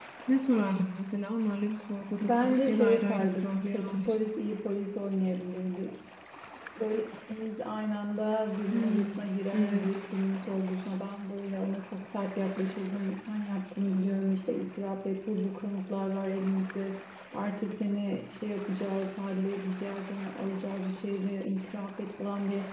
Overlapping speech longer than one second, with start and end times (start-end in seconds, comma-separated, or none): 2.2-4.3